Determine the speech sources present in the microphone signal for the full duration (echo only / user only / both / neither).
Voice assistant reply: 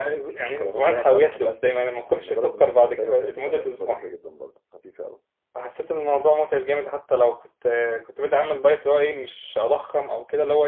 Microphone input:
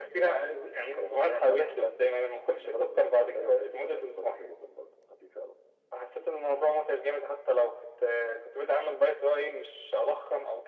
echo only